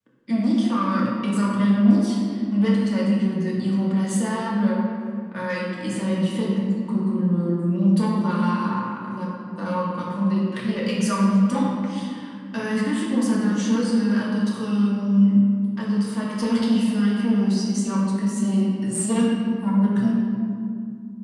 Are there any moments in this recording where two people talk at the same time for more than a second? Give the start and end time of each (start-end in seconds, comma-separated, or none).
none